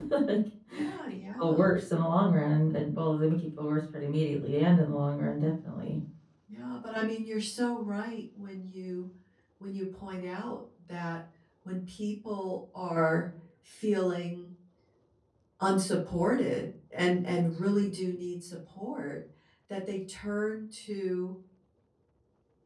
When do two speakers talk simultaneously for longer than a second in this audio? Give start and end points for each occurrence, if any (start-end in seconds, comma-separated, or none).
none